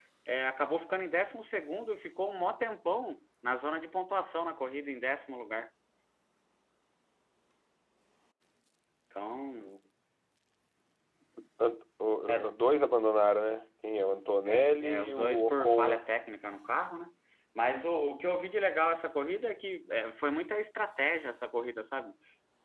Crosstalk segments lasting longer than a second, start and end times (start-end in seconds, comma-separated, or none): 14.4-16.0